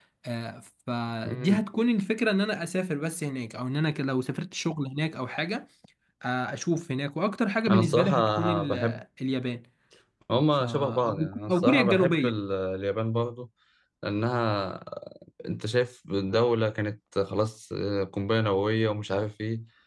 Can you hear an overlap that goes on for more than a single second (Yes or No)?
Yes